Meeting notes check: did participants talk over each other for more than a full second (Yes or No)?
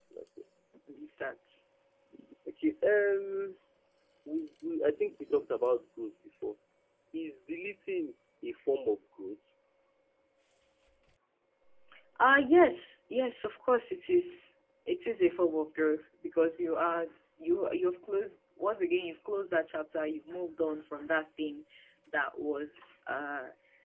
No